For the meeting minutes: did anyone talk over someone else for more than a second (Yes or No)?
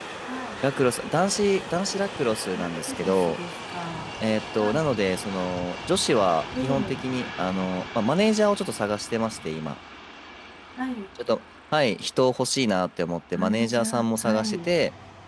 Yes